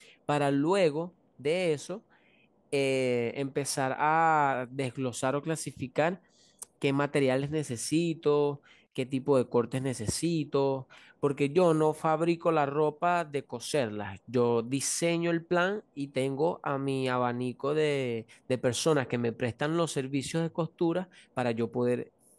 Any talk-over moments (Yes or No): No